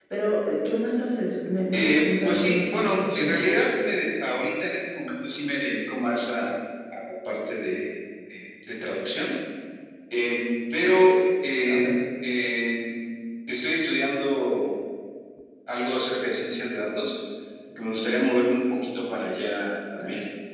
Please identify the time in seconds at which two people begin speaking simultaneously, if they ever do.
1.7 s

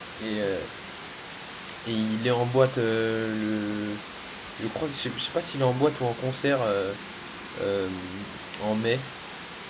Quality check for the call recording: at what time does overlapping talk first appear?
none

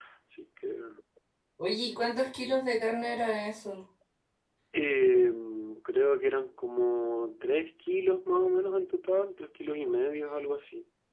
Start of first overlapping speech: none

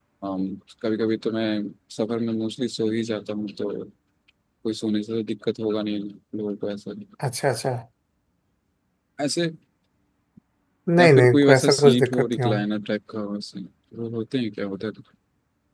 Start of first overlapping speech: 11.0 s

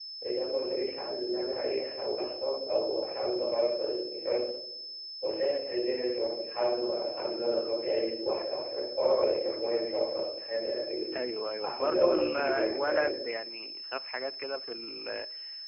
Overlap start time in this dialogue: 11.6 s

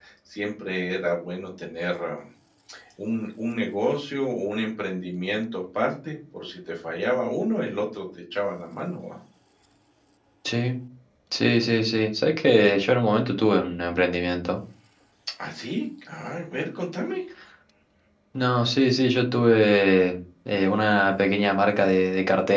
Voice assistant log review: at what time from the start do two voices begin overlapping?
none

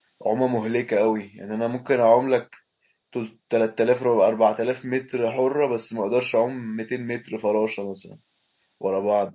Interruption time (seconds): none

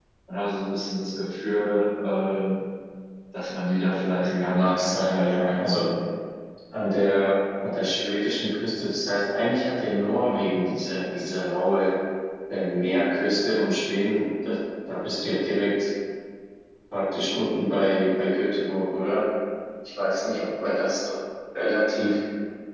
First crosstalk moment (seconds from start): 4.2 s

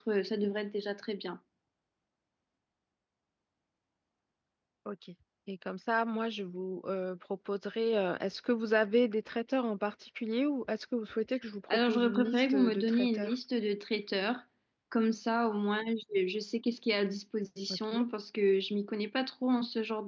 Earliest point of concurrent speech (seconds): 11.7 s

